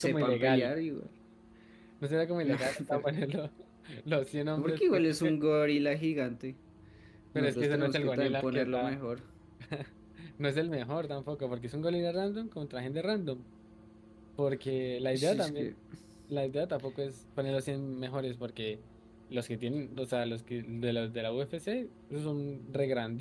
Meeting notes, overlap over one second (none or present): present